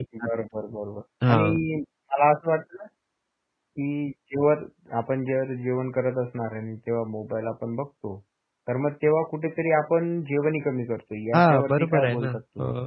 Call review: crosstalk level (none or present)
present